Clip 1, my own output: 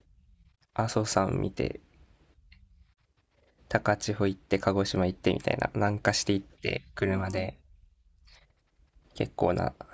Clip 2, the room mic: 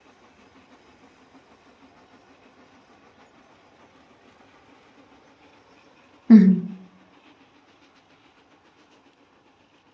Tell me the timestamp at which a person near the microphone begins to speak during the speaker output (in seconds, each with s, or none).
6.3 s